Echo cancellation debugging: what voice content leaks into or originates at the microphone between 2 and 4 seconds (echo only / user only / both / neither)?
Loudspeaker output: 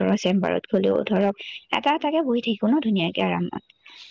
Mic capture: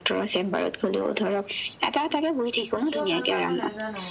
both